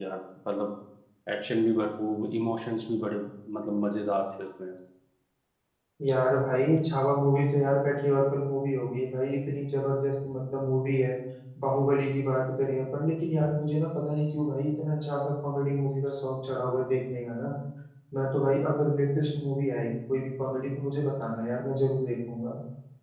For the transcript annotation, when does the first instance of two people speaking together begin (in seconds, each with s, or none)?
none